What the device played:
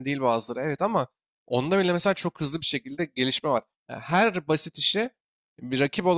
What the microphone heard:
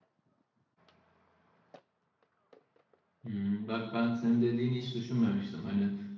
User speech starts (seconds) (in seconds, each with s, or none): 3.2 s